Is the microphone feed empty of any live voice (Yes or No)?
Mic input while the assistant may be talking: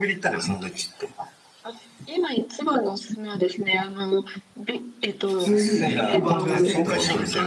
No